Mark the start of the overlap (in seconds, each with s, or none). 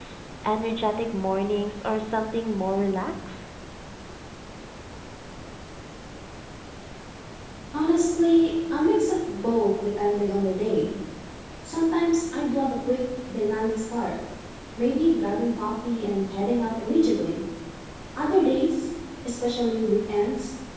none